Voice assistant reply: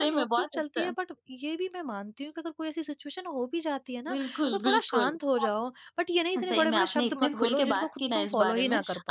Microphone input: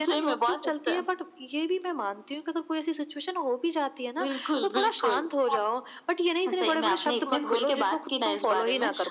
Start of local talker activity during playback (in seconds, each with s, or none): none